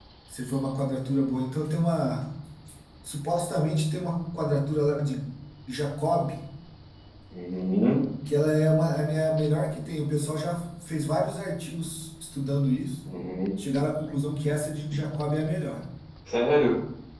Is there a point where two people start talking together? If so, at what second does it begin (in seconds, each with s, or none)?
none